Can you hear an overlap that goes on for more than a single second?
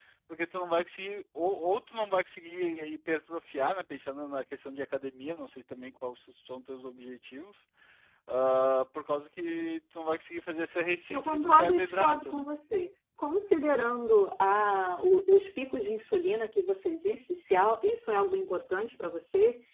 Yes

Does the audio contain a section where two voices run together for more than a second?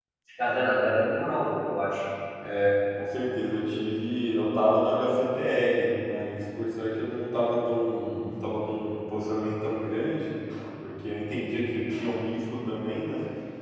No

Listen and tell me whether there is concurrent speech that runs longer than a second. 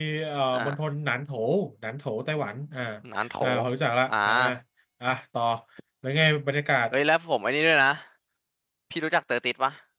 No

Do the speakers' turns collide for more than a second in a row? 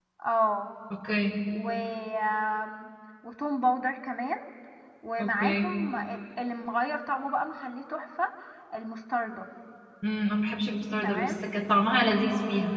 No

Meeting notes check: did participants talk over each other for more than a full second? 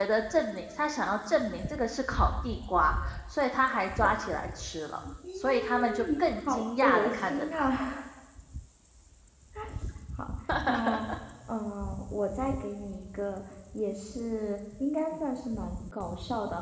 Yes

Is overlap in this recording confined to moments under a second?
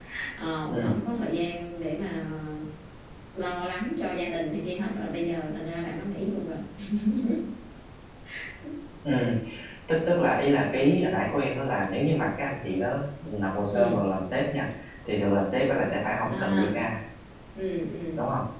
Yes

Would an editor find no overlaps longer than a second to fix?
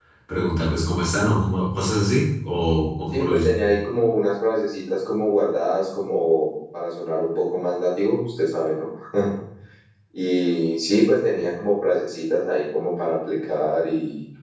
Yes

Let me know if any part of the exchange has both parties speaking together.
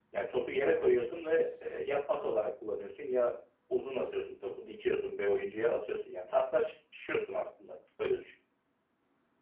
No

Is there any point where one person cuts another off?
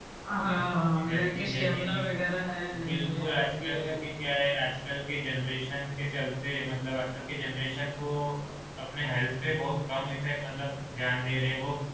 Yes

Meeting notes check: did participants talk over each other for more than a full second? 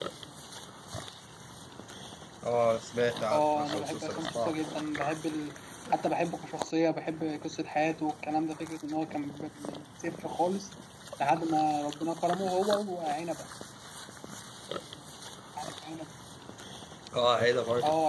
Yes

